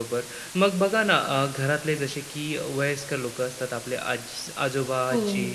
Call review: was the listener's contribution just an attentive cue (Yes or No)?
Yes